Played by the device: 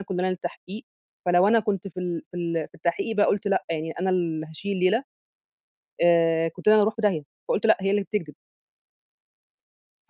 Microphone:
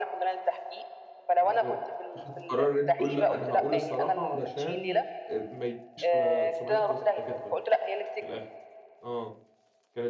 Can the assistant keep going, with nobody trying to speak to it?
No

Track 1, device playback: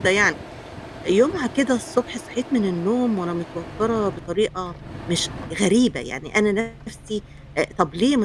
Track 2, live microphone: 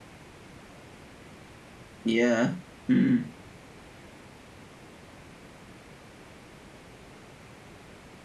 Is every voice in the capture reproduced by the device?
No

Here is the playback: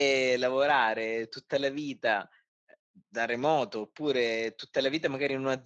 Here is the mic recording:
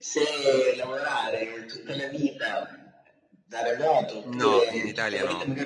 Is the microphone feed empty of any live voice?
No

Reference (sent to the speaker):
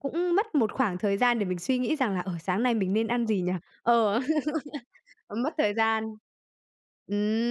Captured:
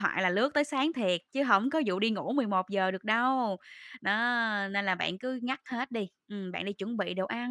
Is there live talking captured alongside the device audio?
Yes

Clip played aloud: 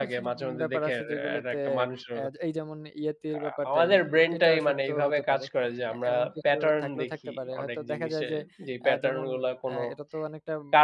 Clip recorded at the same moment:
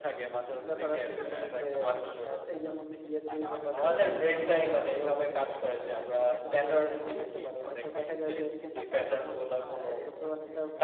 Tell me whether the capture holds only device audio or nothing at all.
No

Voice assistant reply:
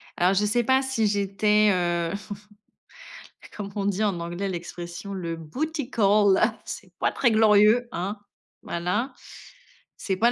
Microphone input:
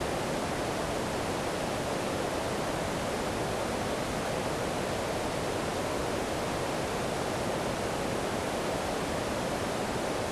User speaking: No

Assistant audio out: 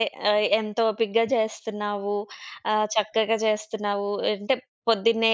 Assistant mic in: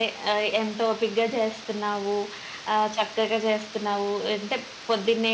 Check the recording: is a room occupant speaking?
No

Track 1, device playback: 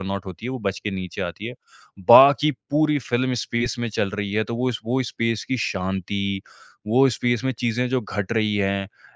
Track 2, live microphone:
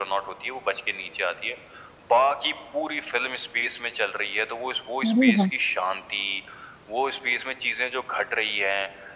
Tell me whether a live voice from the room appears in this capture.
Yes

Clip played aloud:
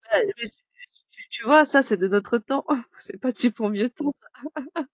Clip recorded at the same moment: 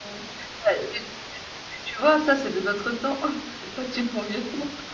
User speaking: No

